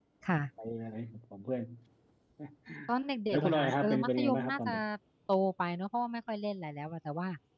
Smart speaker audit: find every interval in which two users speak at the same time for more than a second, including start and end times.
3.3-4.7

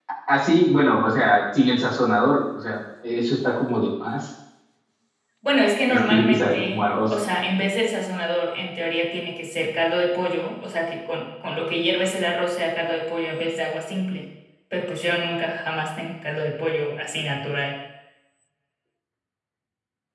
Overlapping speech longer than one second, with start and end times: 5.9-7.2

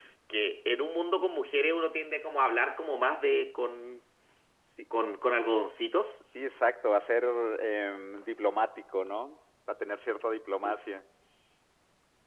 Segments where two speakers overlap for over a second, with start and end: none

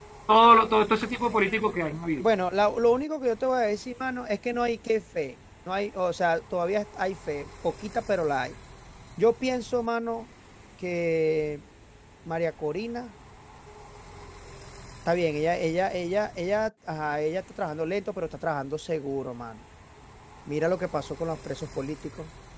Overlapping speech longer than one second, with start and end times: none

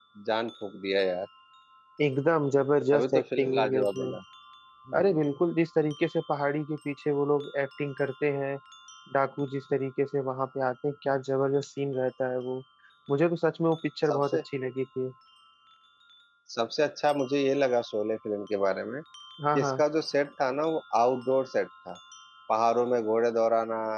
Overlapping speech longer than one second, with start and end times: 2.9-4.1

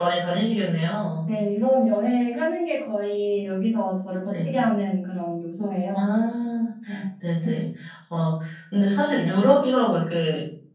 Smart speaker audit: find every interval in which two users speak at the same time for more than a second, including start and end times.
none

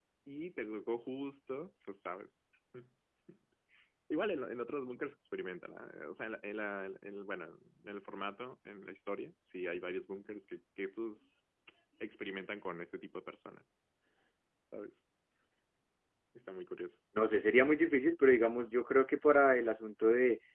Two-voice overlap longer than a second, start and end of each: none

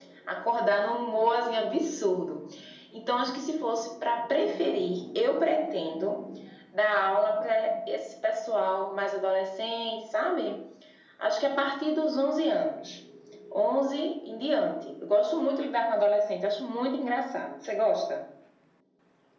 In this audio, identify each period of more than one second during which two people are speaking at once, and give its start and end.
none

